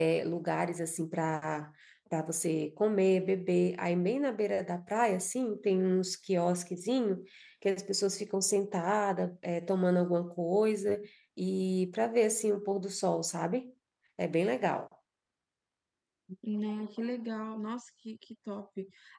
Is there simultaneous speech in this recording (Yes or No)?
No